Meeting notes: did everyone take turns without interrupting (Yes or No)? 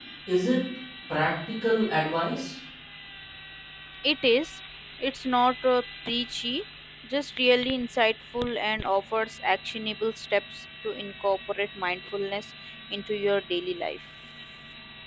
Yes